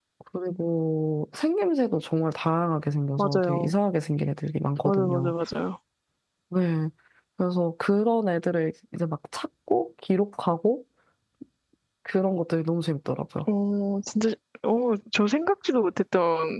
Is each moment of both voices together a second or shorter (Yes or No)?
Yes